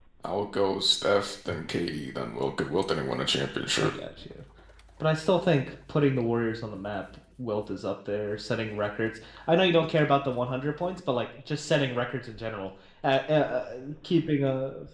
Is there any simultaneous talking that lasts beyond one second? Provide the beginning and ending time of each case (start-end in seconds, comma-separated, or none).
none